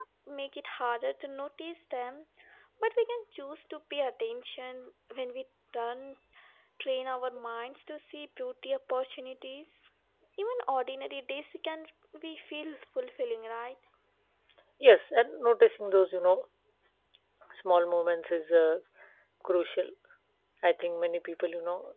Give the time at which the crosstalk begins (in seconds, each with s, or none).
none